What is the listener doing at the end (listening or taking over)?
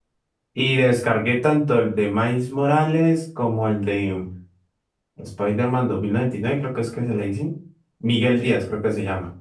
listening